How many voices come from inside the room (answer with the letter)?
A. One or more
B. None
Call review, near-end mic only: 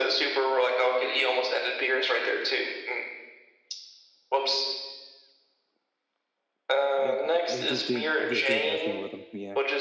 A